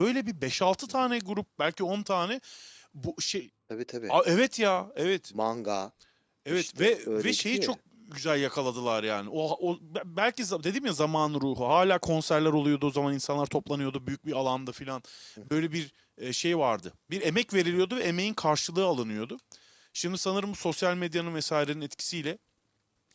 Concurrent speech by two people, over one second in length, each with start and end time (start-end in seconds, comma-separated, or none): 6.5-7.8